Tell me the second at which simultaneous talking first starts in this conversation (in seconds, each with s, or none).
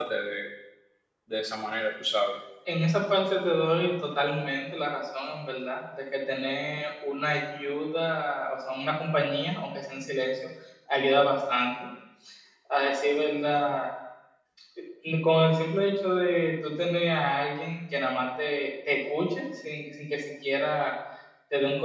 none